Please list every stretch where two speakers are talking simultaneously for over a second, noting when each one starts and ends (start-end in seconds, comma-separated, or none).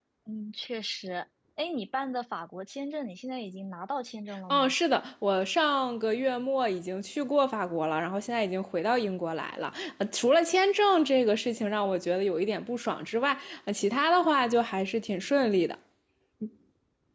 none